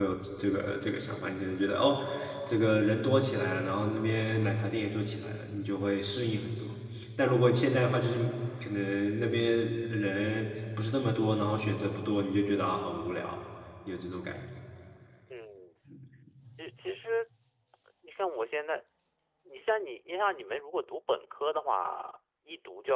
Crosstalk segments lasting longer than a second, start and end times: none

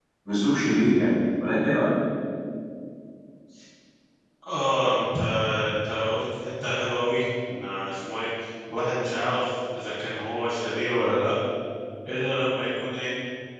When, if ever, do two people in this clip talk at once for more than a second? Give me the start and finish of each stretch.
none

